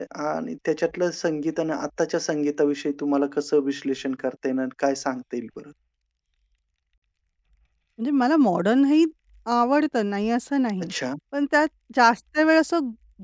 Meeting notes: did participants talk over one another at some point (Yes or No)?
No